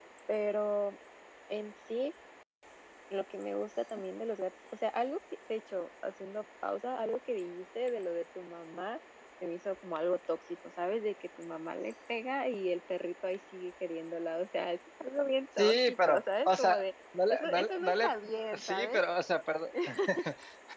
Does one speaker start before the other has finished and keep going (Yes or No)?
Yes